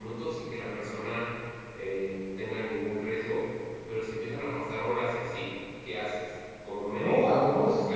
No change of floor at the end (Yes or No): No